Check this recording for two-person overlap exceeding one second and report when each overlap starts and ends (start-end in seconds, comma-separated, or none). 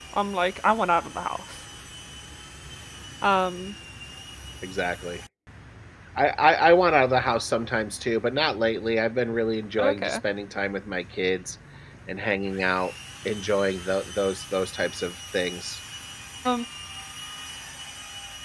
none